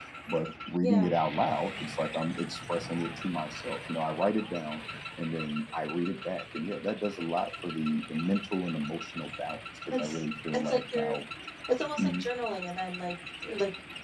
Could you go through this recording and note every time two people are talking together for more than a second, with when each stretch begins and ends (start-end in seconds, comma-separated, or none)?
9.9-11.2